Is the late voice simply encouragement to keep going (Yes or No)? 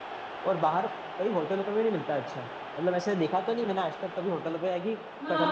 No